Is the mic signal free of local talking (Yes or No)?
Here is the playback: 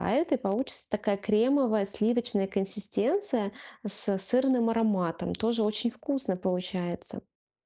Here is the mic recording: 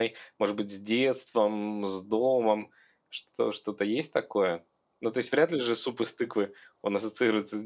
No